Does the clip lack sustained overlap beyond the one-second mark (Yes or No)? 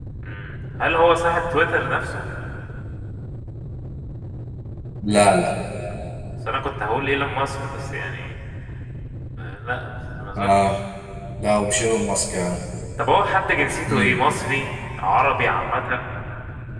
Yes